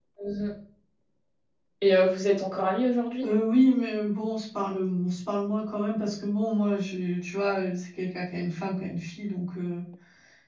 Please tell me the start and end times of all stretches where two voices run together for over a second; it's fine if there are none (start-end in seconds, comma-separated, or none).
none